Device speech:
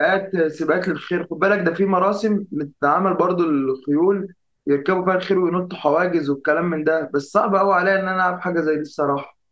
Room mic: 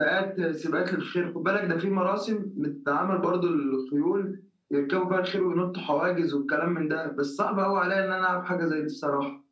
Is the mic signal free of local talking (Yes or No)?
Yes